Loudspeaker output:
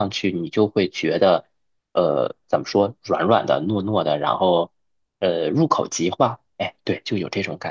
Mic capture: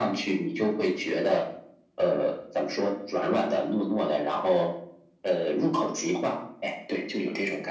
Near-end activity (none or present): none